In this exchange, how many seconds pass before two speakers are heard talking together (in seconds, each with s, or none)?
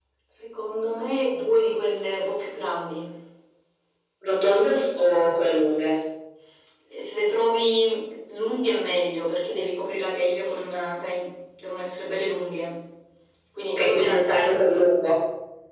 13.7 s